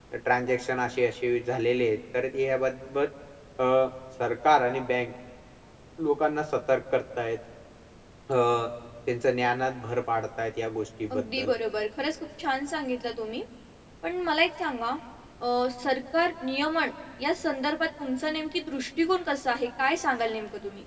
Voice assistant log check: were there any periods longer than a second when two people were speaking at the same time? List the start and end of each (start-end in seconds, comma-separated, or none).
none